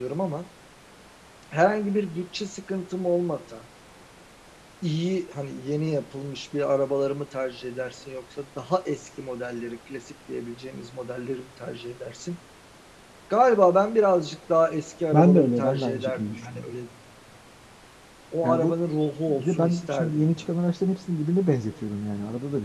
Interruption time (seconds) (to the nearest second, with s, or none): 15 s